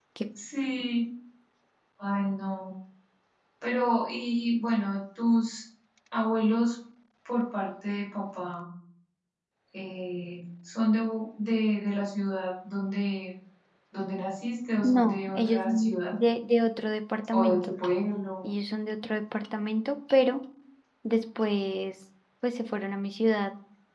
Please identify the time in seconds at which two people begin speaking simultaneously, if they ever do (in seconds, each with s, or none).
14.8 s